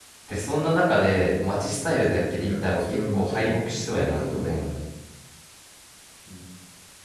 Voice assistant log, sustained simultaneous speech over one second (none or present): present